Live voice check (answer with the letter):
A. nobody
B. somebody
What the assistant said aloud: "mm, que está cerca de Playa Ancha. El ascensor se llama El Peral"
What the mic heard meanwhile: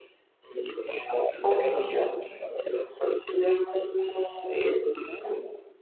B